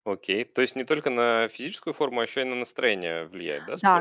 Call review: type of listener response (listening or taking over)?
taking over